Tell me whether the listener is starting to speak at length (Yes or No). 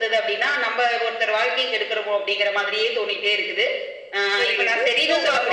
Yes